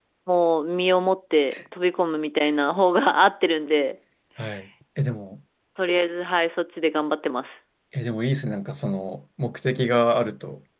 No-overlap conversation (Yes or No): Yes